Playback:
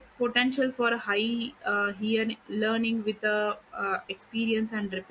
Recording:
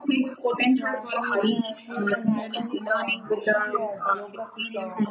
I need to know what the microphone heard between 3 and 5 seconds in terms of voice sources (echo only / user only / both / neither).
both